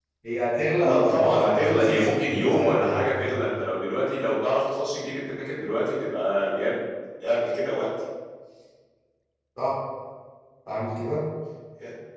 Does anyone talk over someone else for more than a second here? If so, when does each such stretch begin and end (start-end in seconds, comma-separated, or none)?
0.8-3.1